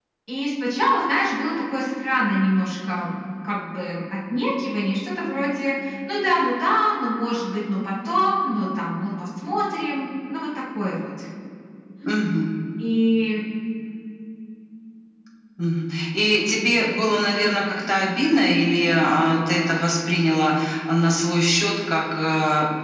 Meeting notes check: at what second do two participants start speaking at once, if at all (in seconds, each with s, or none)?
none